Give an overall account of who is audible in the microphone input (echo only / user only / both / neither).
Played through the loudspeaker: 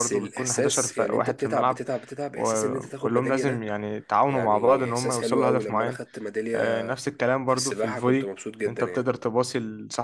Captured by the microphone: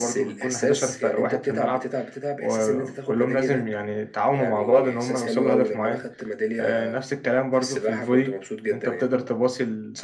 echo only